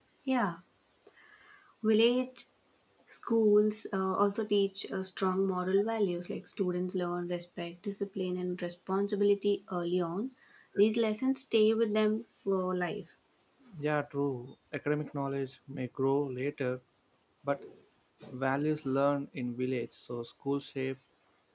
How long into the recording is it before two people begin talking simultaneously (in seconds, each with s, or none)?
none